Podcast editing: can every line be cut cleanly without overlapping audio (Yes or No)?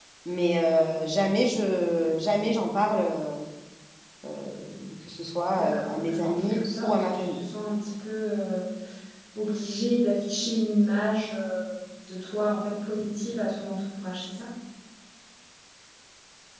No